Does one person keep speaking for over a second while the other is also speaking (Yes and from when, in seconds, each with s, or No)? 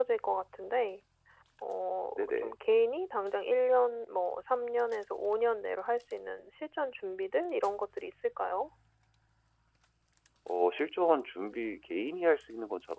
No